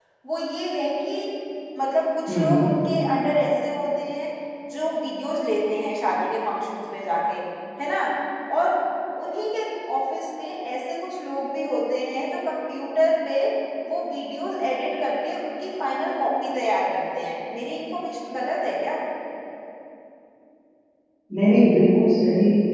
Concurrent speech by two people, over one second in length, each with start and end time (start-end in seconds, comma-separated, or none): none